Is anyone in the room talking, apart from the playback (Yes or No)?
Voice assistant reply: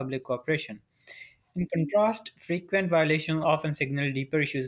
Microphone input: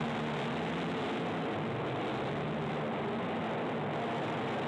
No